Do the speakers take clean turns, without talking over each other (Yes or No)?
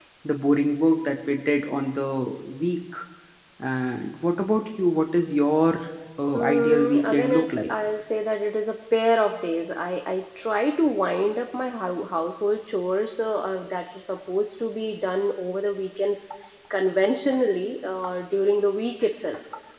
No